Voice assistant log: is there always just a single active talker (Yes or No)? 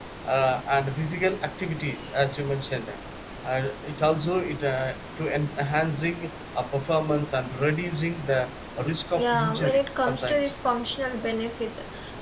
No